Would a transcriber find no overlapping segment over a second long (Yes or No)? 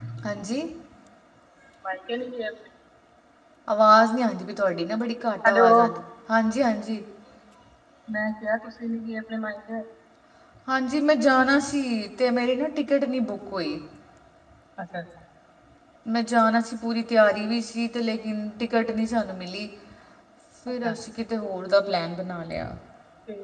Yes